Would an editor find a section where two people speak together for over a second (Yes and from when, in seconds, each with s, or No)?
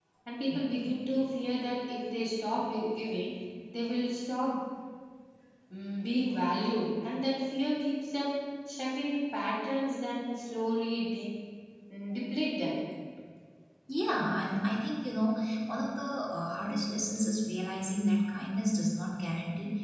No